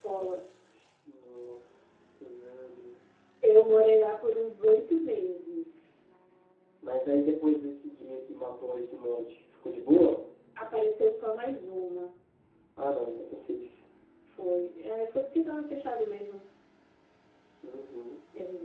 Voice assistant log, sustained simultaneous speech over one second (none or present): none